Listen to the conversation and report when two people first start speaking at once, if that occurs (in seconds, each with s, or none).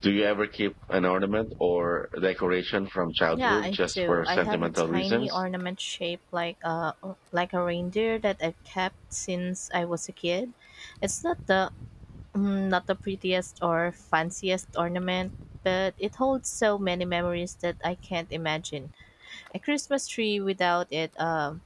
3.3 s